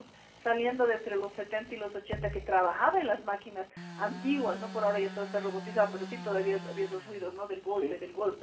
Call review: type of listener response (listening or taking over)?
listening